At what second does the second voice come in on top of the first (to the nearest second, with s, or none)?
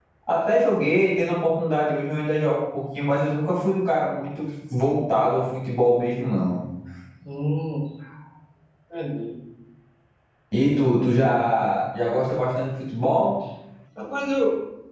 none